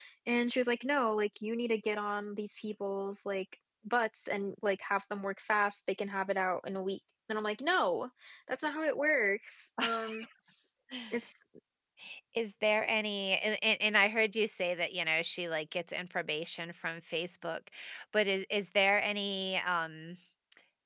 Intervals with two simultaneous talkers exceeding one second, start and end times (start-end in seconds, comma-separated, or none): none